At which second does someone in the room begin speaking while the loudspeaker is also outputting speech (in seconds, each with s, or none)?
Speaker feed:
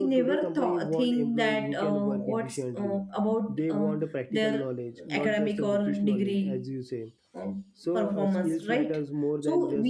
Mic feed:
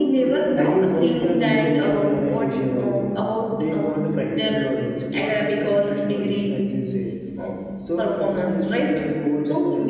0.6 s